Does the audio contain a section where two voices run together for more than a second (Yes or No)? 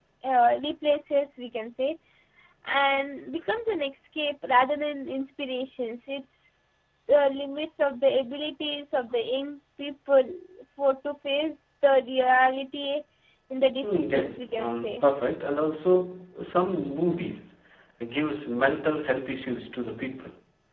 Yes